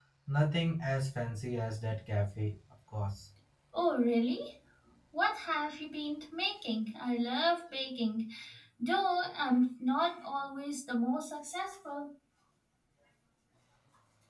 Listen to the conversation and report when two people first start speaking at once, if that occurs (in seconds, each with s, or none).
none